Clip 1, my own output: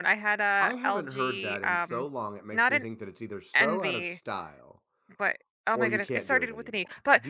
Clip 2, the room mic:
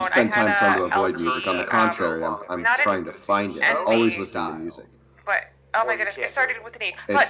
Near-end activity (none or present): present